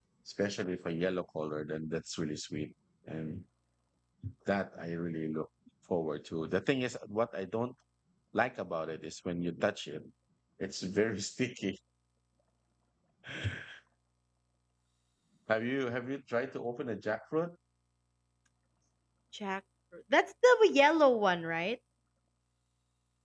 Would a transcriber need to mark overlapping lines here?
No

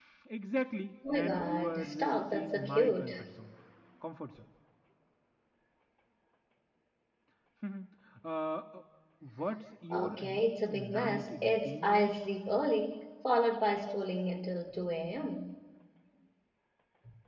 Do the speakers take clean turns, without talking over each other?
No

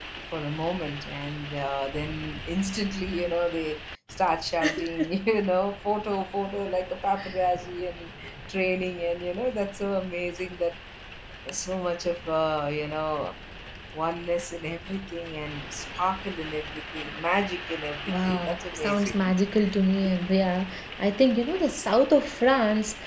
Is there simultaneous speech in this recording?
Yes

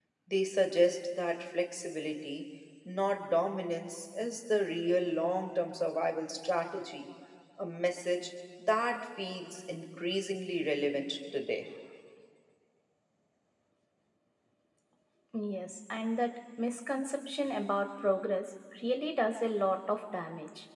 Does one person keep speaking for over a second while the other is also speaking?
No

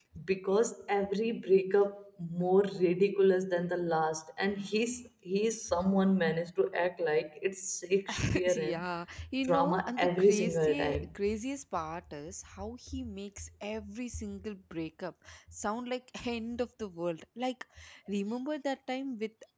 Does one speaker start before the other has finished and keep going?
Yes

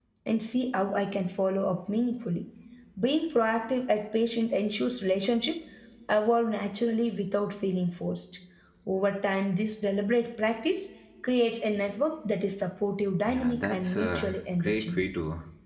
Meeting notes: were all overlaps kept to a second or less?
No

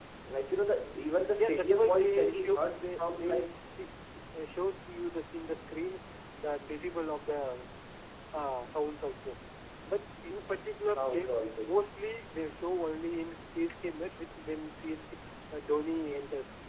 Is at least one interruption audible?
Yes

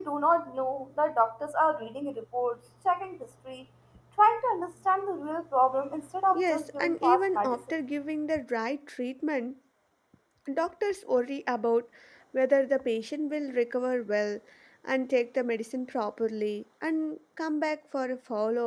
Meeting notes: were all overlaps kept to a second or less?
No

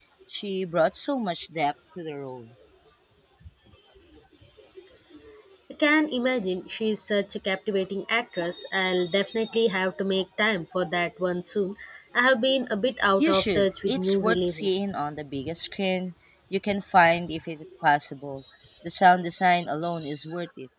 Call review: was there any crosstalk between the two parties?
Yes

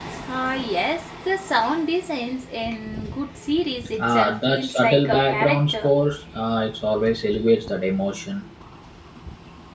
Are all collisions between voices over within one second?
No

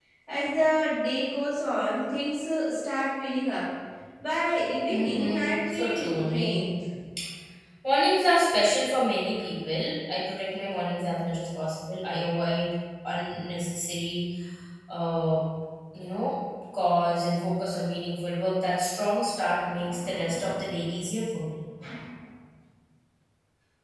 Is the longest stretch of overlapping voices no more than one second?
No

